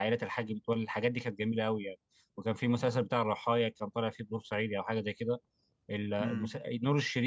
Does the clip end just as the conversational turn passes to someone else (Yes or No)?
No